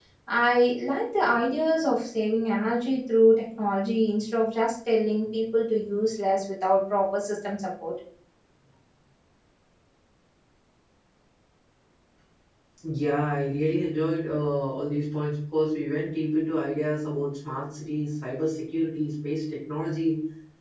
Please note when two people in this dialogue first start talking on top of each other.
none

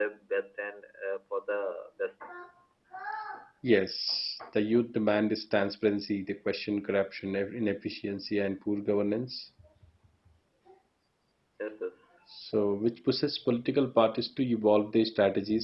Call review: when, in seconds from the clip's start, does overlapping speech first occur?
none

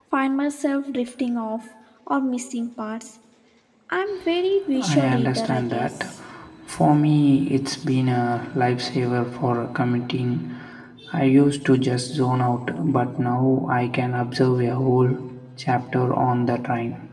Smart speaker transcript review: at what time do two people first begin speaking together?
4.7 s

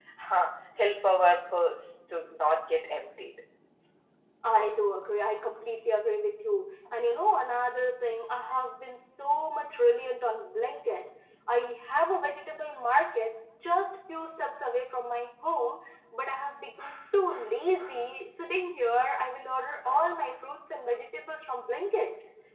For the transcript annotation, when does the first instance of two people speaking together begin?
none

